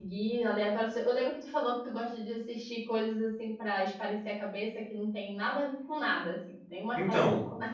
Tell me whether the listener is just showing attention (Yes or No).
No